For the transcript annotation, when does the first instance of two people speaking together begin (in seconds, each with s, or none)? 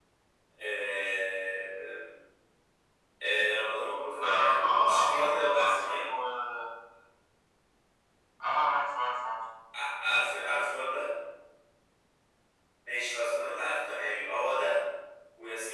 4.2 s